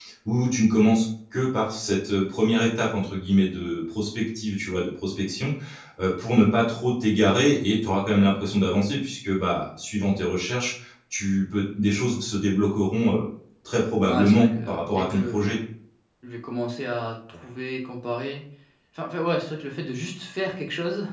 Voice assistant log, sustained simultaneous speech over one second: present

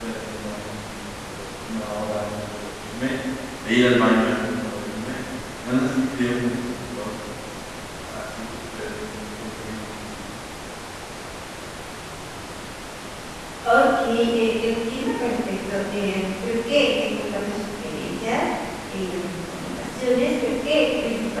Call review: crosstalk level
none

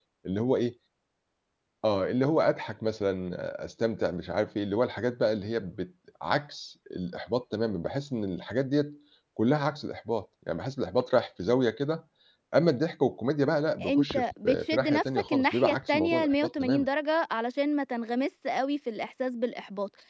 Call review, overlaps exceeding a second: present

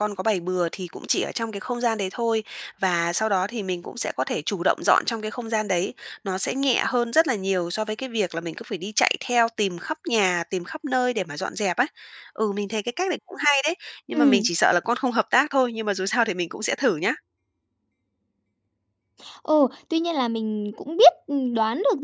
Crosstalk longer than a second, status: none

